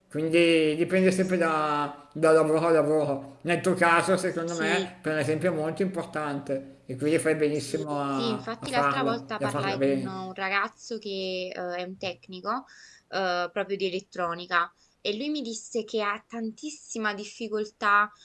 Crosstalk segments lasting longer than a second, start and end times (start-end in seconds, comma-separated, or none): 8.2-10.2